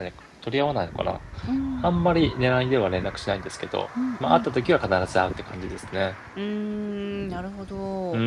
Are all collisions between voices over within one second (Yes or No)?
Yes